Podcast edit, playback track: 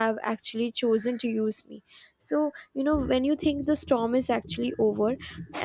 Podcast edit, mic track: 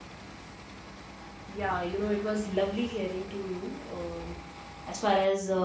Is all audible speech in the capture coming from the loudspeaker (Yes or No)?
No